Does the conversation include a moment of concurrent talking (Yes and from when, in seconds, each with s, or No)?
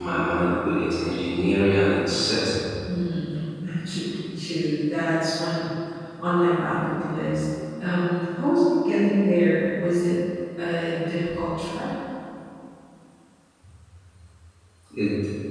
No